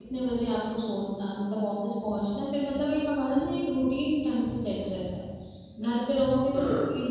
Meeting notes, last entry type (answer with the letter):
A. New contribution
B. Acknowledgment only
B